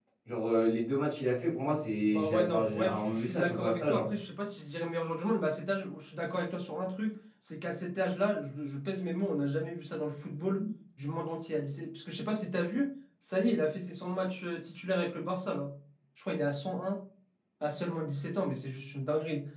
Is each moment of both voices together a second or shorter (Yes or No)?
No